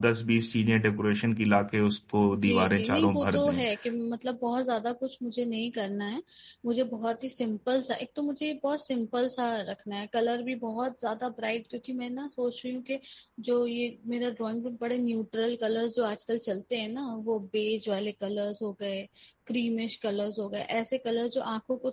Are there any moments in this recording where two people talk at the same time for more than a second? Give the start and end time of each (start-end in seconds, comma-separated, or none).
2.4-3.6